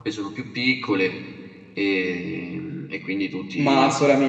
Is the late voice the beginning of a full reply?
Yes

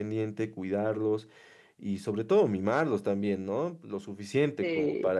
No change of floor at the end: Yes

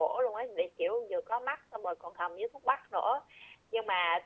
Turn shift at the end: No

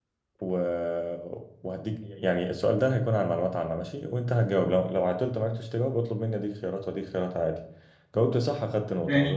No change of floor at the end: Yes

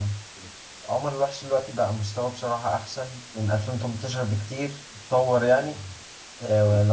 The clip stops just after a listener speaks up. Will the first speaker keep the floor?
Yes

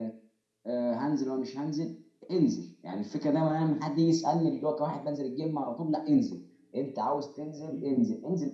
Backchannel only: Yes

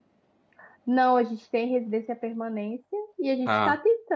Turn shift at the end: No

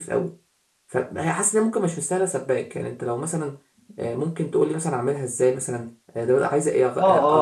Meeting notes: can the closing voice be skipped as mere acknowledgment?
No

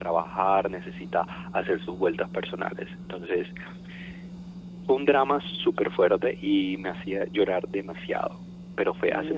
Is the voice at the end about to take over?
Yes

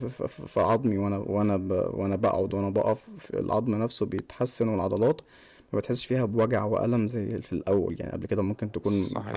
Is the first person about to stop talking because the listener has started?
No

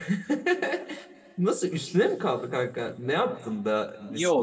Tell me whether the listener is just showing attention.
No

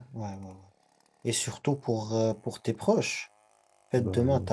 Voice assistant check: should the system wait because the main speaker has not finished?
Yes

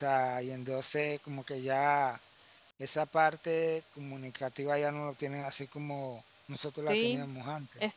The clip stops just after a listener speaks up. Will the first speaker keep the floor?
No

